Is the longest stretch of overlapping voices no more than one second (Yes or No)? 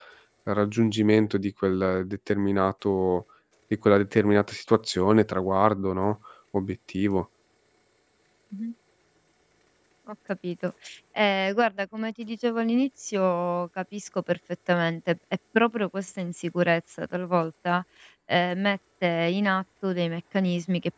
Yes